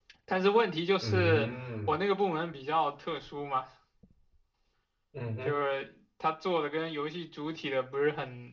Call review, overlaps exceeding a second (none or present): none